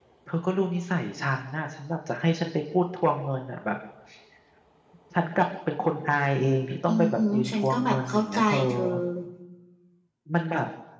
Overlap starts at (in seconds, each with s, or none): 6.9 s